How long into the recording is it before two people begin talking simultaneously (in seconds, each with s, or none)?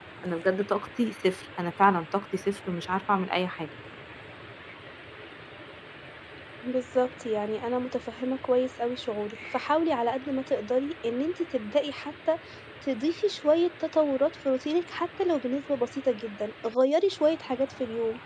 none